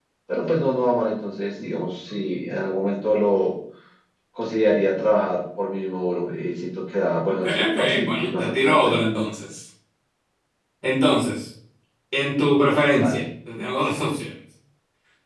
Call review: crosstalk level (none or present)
present